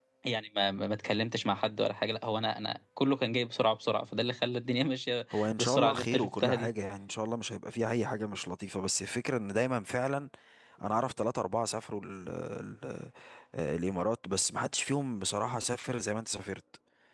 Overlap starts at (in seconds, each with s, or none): 5.3 s